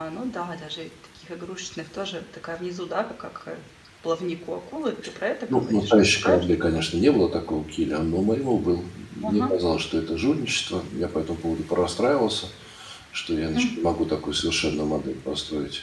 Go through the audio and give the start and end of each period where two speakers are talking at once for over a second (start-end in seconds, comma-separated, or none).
5.5-6.8